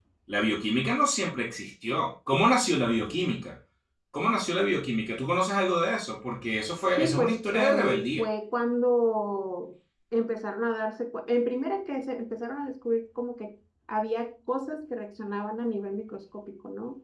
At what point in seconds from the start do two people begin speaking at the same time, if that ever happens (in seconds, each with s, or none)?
7.0 s